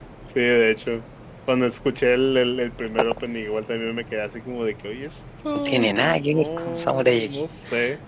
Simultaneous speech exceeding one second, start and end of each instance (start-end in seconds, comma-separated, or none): 5.5-7.4